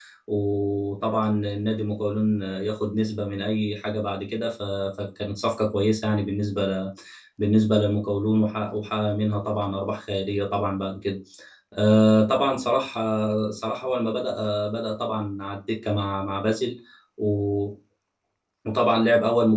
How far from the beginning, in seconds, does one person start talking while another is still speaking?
none

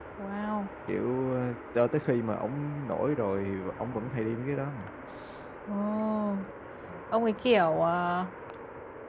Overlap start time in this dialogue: none

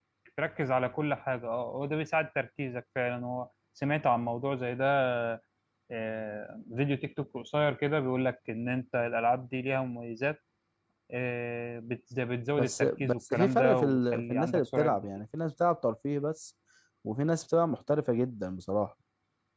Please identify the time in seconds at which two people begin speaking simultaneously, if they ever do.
13 s

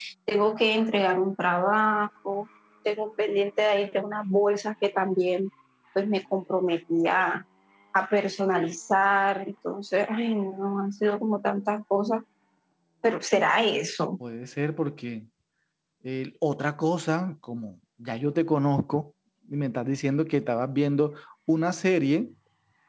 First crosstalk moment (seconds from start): none

